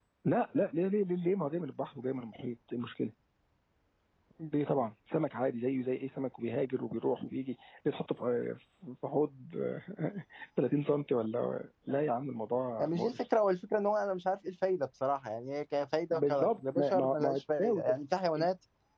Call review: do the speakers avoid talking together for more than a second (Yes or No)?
No